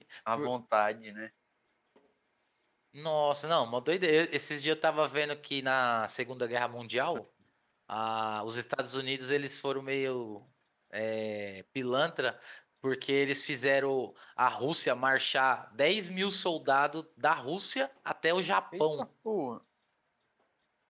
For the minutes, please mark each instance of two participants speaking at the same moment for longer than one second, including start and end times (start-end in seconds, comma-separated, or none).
none